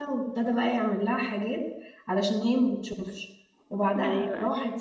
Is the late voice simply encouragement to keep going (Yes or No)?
Yes